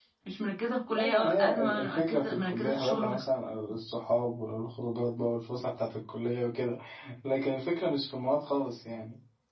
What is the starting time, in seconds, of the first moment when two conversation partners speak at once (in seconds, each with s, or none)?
0.9 s